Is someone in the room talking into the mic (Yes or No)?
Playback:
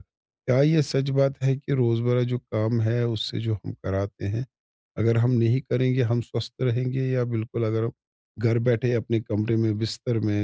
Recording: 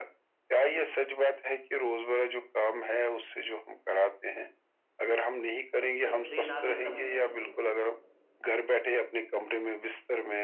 Yes